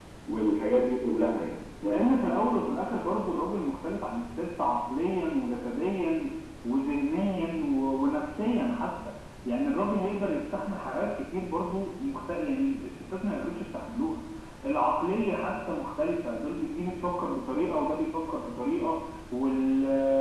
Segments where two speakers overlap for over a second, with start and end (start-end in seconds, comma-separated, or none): none